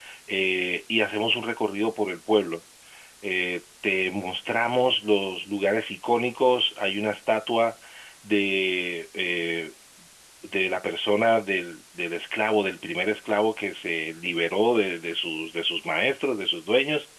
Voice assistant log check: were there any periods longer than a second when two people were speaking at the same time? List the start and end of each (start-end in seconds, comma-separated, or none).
none